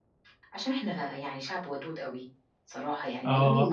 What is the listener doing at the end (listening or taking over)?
listening